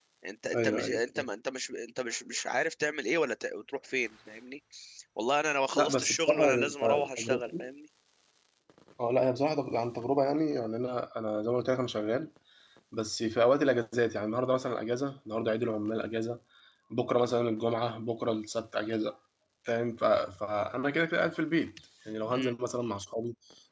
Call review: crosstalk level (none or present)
present